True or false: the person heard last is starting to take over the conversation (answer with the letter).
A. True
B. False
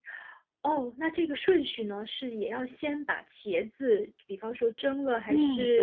A